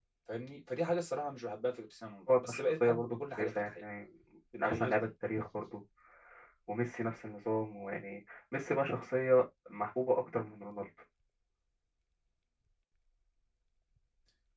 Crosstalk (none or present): present